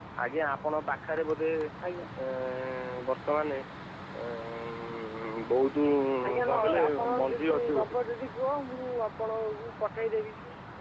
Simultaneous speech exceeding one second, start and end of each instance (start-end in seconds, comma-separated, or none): 6.2-8.0